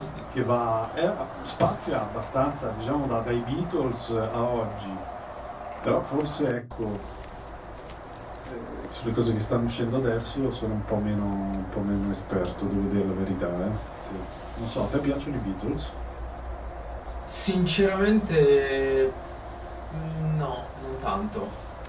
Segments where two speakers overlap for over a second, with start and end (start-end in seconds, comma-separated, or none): none